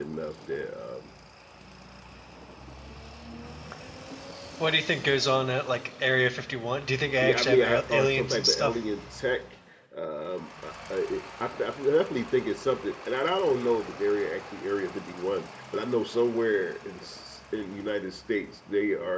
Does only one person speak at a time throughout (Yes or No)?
No